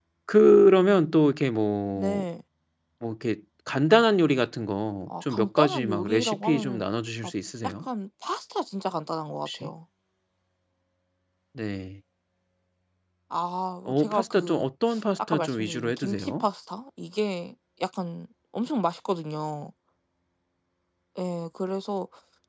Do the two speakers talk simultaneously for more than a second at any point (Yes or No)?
Yes